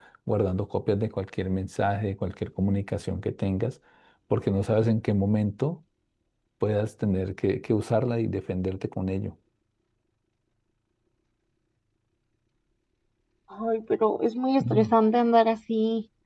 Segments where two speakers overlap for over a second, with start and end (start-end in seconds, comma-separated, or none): none